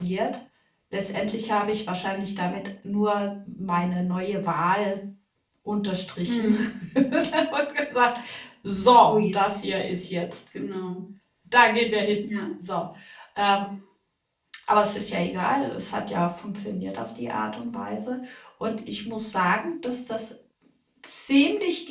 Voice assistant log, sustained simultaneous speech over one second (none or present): none